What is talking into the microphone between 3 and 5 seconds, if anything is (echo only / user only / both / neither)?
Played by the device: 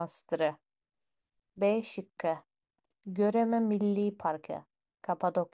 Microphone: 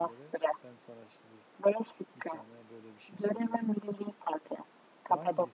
both